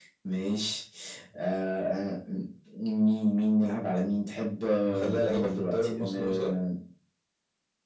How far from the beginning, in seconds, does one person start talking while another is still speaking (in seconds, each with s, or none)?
4.8 s